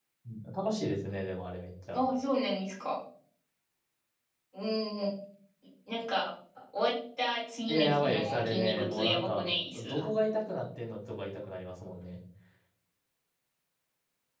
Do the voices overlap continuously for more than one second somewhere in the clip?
Yes, from 7.7 s

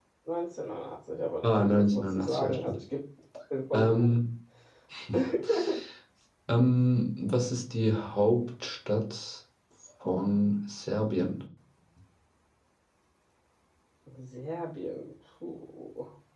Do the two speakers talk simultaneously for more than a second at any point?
Yes, from 1.4 s

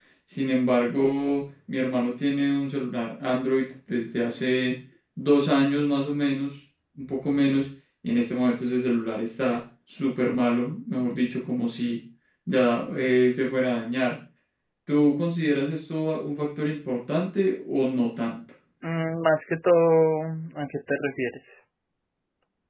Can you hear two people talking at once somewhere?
No

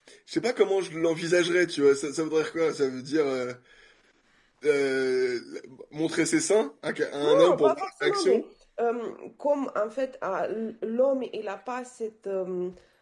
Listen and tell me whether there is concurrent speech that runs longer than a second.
Yes, from 7.2 s

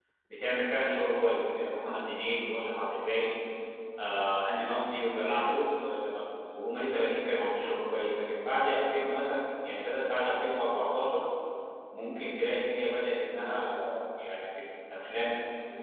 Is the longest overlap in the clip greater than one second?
No

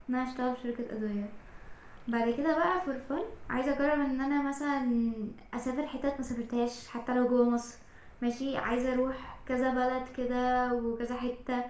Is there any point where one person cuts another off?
No

